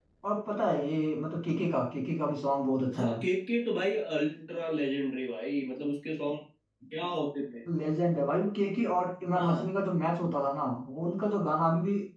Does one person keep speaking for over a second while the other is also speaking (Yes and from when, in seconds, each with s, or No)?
No